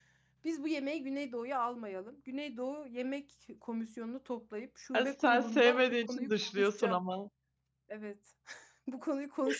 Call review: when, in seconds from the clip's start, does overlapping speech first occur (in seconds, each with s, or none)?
4.9 s